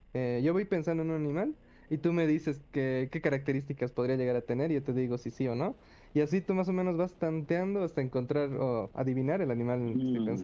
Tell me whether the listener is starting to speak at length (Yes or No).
Yes